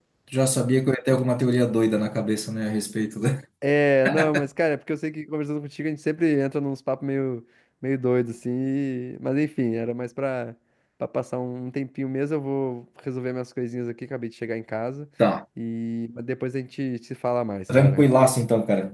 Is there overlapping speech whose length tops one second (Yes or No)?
No